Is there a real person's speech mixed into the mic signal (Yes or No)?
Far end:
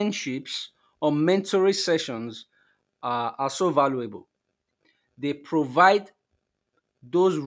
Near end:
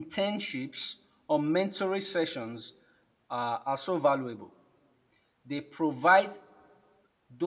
No